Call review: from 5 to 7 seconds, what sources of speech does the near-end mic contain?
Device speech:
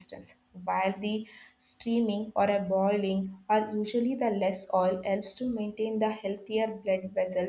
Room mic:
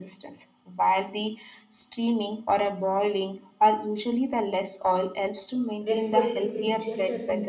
both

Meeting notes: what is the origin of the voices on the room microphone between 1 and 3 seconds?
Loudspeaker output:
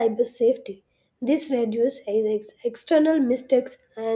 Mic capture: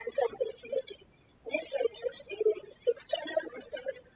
echo only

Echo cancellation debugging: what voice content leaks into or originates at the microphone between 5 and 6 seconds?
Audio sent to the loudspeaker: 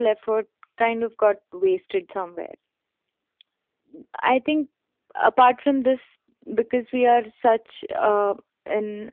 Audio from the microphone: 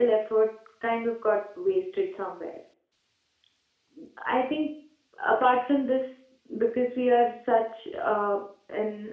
echo only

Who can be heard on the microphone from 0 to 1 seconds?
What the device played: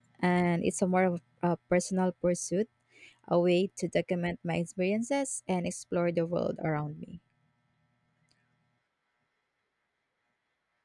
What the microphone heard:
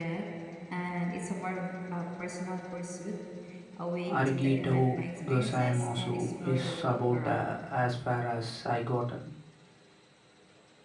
echo only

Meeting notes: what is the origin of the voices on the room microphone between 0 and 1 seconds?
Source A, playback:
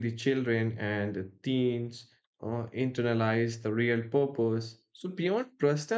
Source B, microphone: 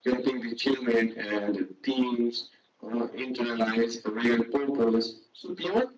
echo only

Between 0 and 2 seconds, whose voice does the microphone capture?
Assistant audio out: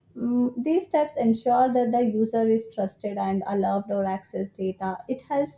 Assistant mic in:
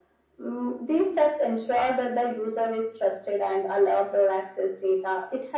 echo only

